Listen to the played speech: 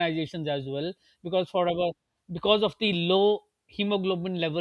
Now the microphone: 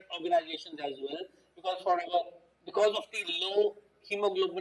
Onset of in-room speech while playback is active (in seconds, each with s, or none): none